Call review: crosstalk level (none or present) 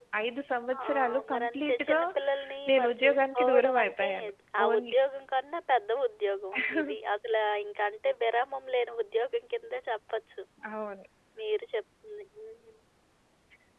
present